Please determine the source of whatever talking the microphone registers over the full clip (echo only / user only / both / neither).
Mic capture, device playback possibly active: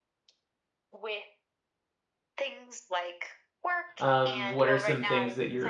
both